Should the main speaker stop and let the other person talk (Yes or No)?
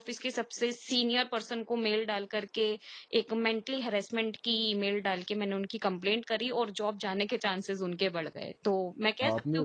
Yes